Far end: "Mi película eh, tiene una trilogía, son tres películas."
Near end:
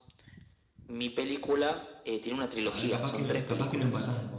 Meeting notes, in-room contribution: present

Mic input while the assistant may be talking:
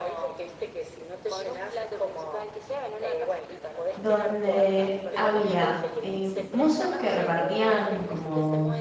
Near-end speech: present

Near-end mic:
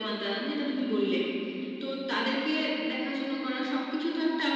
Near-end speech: none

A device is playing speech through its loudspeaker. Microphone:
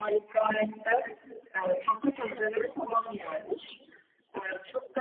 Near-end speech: none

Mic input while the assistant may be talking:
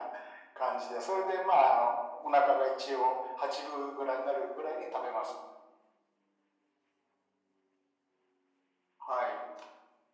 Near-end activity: none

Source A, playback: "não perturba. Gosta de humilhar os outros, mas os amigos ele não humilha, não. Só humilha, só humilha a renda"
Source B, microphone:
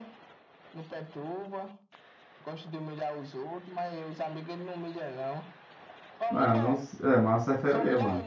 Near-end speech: present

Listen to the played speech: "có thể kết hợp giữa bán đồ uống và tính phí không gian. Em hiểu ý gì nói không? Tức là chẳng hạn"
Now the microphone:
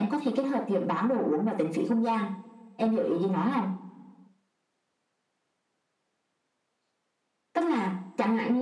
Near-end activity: none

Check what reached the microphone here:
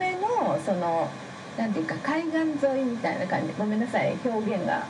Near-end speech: none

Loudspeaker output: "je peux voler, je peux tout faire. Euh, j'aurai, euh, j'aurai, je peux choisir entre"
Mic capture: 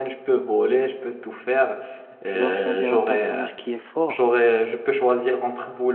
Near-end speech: present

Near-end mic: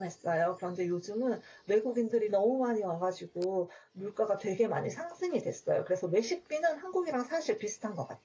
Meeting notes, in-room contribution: present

